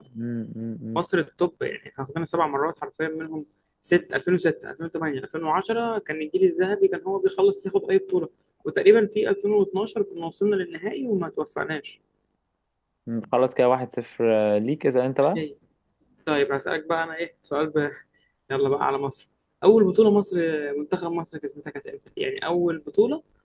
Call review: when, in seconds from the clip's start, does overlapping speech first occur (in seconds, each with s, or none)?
none